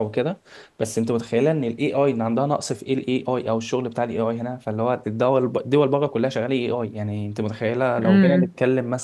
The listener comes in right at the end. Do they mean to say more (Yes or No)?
No